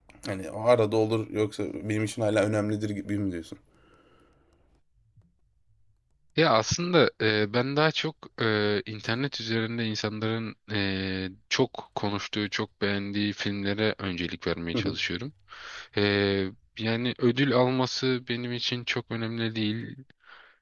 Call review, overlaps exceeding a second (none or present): none